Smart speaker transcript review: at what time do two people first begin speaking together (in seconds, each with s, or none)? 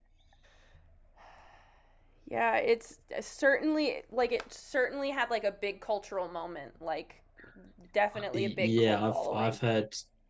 8.3 s